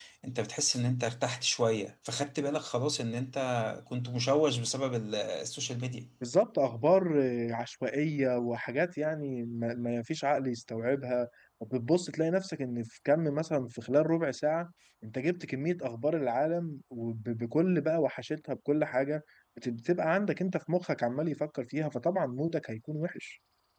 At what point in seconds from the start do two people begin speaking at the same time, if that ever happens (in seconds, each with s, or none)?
none